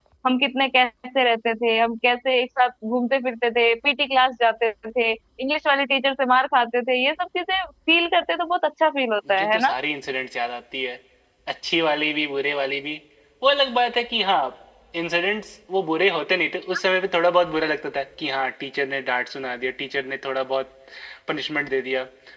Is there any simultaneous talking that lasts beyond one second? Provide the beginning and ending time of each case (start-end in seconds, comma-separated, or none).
none